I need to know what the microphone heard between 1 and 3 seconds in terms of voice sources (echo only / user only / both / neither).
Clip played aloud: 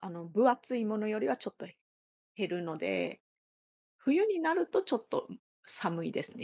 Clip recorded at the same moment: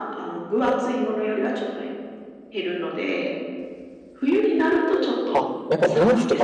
echo only